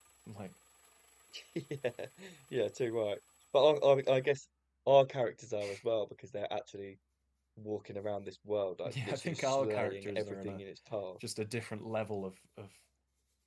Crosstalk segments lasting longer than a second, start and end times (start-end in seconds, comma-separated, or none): 9.0-10.6